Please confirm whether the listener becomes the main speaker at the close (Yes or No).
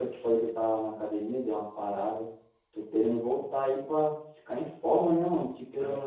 No